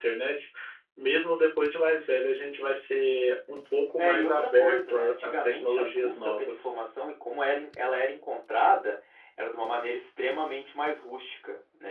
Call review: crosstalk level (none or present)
present